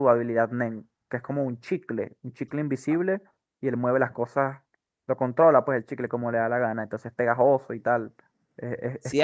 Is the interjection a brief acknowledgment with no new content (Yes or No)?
No